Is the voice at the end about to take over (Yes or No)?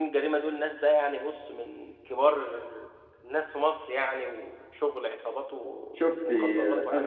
Yes